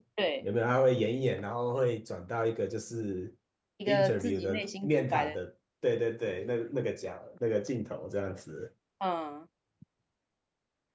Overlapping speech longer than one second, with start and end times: 3.9-5.3

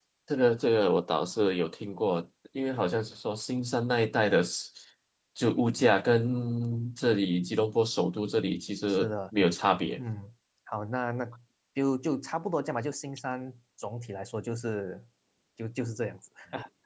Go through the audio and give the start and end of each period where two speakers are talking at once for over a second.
none

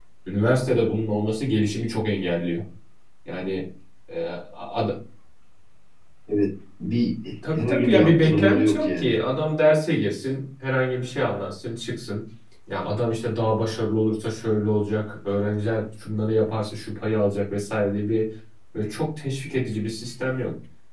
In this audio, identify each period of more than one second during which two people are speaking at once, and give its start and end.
7.5-9.2

